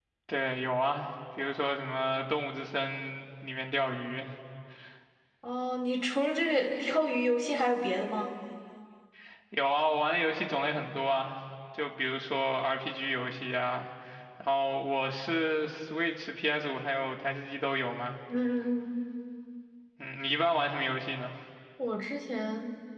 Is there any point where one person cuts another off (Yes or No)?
No